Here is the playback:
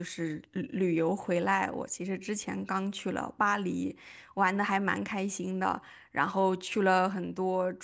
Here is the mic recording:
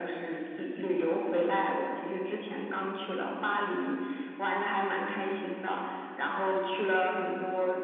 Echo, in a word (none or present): present